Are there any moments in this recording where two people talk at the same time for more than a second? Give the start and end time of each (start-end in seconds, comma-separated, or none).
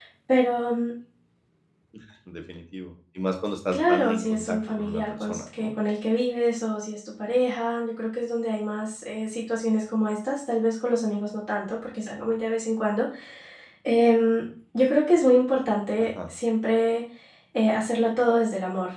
3.7-5.7